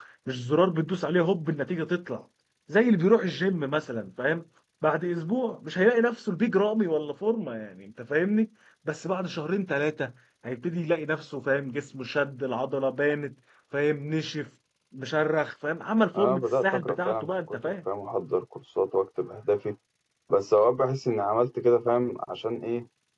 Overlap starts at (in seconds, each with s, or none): 16.1 s